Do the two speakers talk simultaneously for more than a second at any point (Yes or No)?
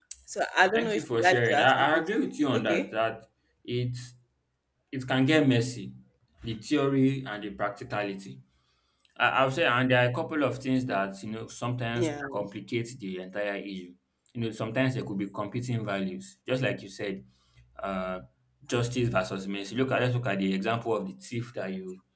Yes